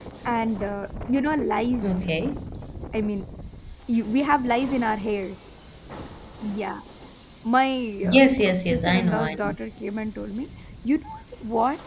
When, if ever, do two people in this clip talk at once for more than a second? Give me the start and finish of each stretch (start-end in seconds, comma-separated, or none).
8.0-9.6